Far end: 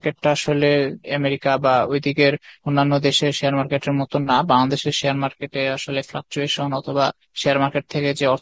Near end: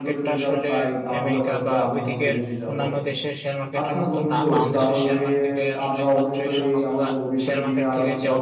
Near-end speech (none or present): present